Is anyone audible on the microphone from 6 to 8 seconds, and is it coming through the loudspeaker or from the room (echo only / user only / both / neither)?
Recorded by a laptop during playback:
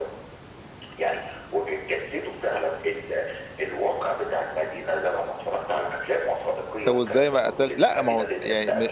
both